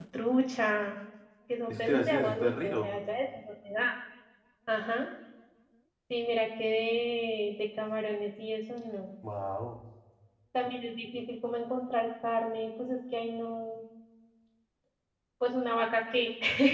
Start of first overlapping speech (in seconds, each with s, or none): 1.7 s